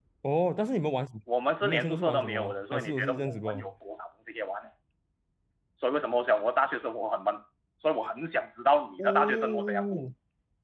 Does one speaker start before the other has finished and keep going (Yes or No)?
Yes